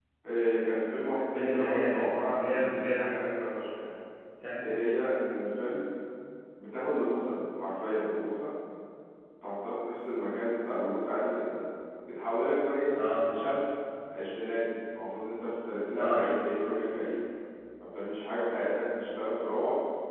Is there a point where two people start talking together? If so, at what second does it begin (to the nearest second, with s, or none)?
1 s